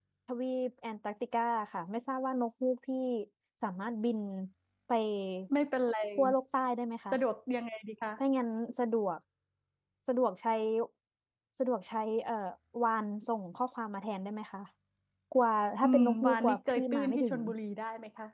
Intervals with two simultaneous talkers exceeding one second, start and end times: 15.8-17.3

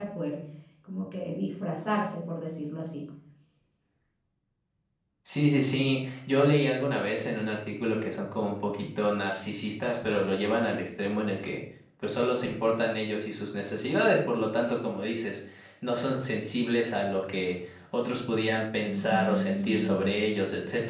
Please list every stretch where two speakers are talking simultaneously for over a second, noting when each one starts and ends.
18.9-20.1

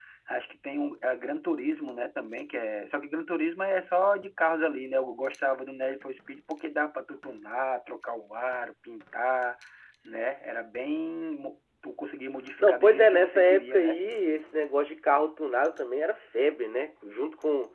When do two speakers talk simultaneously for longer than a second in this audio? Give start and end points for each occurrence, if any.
12.6-14.0

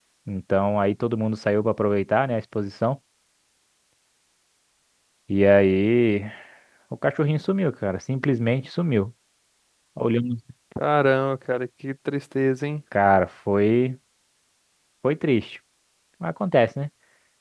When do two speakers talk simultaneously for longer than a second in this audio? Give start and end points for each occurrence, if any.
none

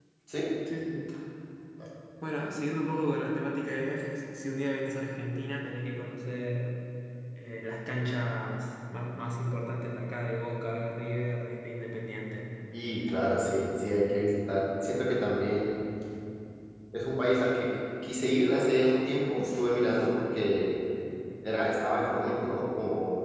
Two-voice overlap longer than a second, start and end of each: none

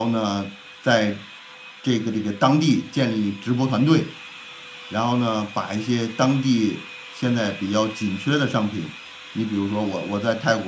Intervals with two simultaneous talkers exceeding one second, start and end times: none

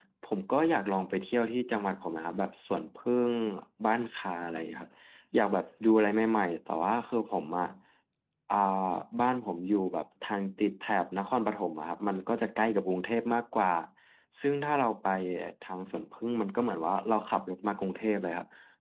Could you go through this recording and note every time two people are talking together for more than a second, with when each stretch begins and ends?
none

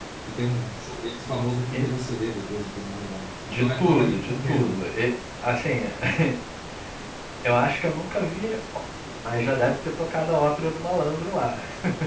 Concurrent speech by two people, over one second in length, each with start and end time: 3.5-4.9

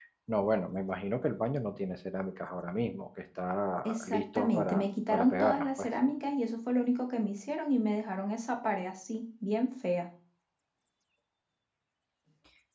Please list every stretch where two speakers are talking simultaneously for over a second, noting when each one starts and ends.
3.8-5.9

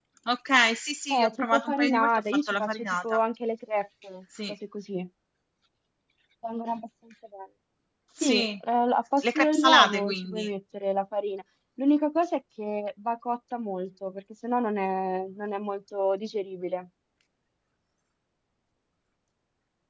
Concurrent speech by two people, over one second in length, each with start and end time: 1.1-3.2, 9.2-10.5

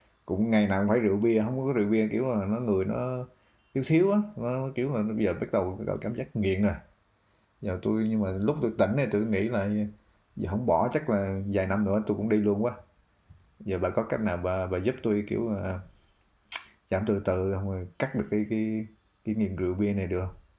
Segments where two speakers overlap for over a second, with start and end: none

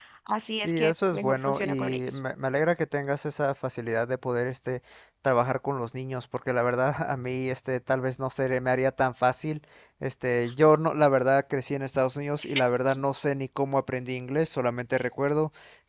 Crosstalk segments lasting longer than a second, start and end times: 0.6-2.0

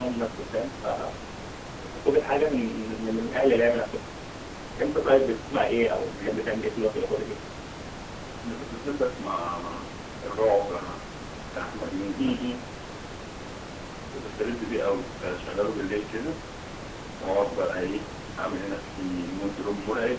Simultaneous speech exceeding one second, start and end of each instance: none

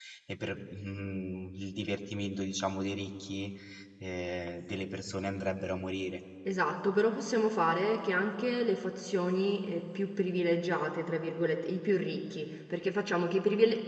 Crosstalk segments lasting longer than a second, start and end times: none

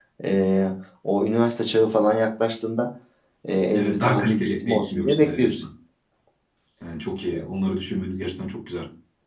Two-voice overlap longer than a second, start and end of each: 3.7-5.6

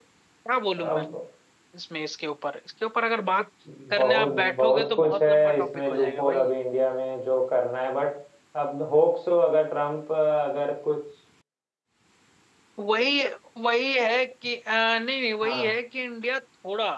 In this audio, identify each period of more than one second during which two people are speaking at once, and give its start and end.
4.0-6.5

